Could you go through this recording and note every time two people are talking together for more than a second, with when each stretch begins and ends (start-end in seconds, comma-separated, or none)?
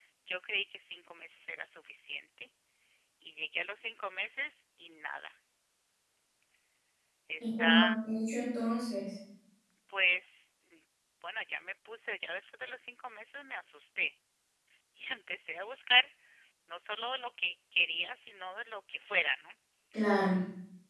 none